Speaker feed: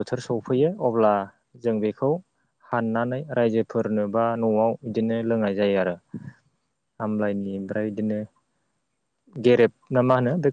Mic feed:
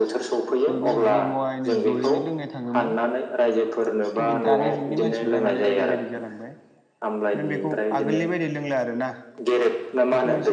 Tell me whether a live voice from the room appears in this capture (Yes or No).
Yes